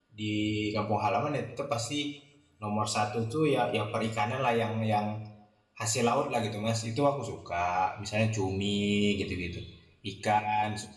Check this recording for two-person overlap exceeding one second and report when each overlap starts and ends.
none

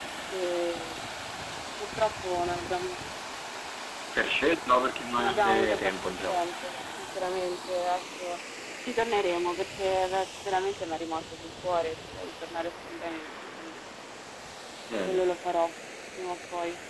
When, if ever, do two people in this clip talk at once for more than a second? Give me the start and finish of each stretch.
5.2-6.4

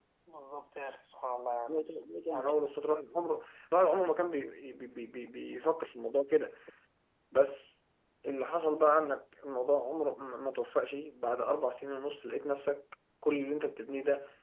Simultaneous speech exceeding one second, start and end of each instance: none

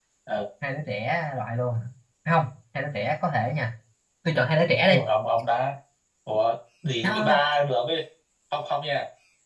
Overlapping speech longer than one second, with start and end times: none

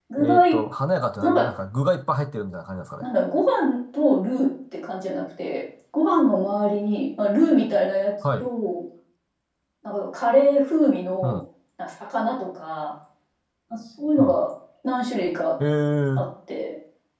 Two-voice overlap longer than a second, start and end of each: none

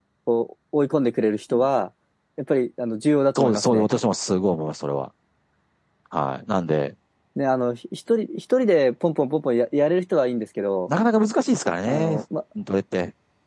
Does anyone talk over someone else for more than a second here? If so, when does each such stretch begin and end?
none

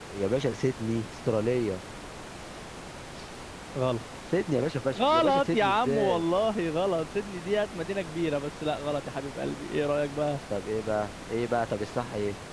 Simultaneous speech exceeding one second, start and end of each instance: 5.0-6.2

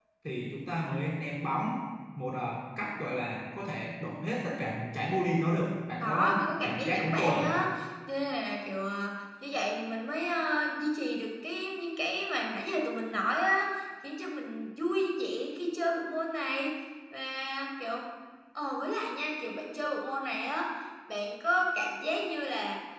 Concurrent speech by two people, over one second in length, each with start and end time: 6.0-7.4

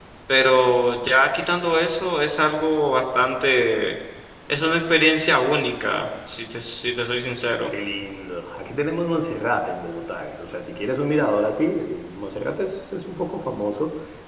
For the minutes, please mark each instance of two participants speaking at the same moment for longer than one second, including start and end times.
none

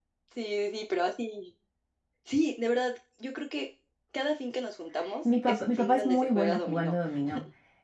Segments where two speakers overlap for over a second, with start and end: 5.2-6.9

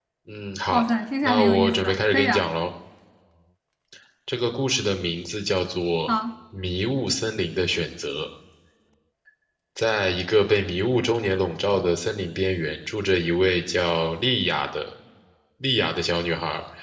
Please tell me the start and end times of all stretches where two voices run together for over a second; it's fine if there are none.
1.2-2.5

